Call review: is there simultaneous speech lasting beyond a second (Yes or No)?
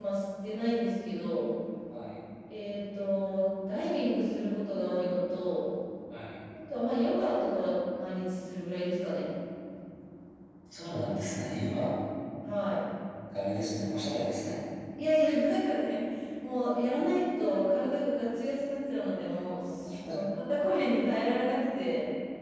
No